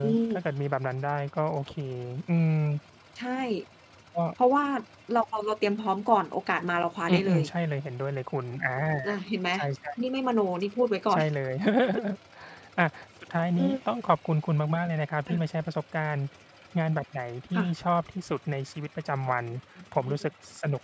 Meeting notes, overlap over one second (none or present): none